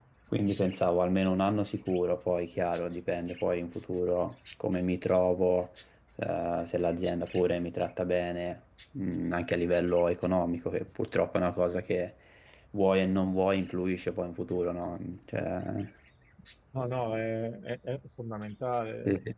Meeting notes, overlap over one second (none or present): none